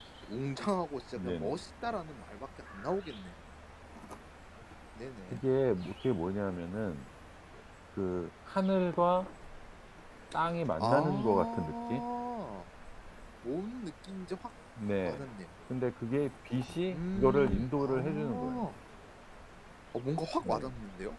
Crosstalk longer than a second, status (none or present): present